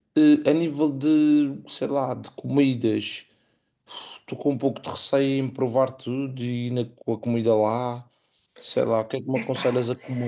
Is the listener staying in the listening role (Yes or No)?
Yes